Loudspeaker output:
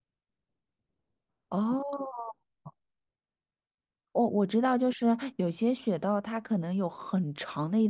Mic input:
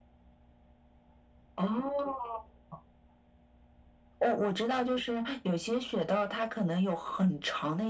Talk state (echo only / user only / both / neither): echo only